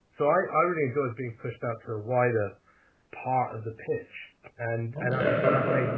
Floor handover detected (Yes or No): Yes